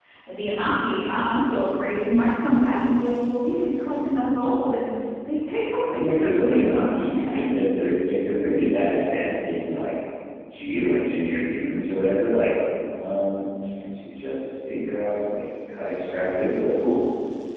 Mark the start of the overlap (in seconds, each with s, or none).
5.9 s